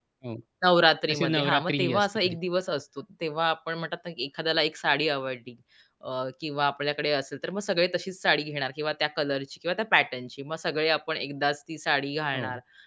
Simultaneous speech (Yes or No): Yes